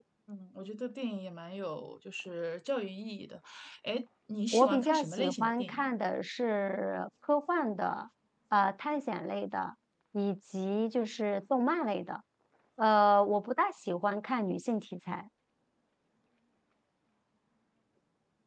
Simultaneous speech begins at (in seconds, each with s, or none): 4.5 s